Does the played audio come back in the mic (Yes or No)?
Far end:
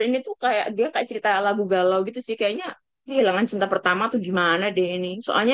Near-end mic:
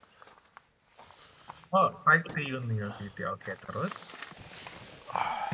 No